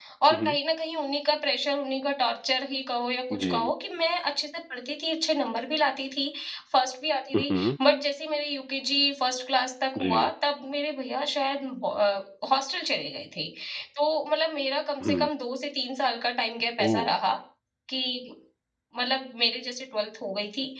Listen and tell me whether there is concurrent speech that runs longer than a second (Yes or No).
No